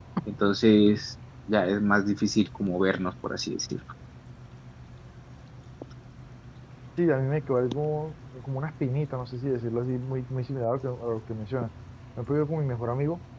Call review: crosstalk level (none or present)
none